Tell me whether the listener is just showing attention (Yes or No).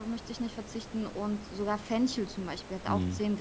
Yes